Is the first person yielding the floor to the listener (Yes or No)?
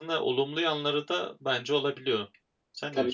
Yes